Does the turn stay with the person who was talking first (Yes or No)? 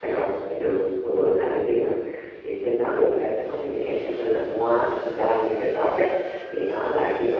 Yes